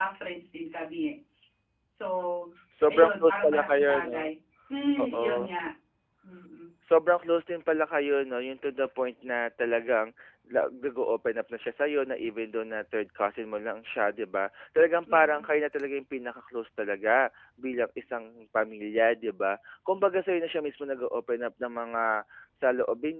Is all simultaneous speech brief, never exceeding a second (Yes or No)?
No